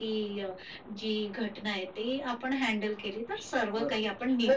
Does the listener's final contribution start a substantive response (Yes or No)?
Yes